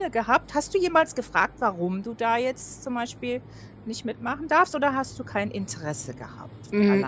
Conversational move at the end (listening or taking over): taking over